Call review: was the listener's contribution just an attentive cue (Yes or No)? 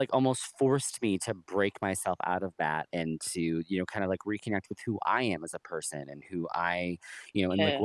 Yes